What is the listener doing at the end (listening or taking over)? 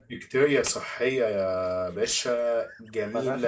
listening